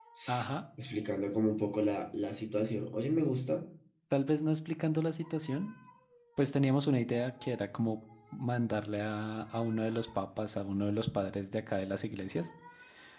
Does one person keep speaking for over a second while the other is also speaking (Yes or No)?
No